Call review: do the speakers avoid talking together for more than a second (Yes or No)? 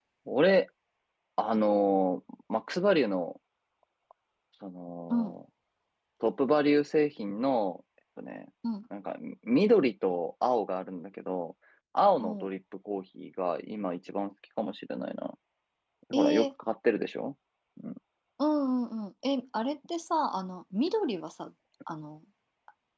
Yes